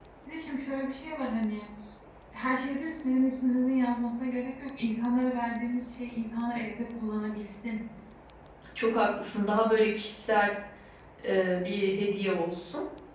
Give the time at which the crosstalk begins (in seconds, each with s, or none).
none